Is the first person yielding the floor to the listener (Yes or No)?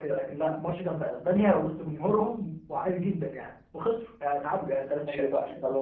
Yes